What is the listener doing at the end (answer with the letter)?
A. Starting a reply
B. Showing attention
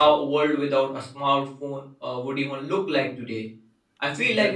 B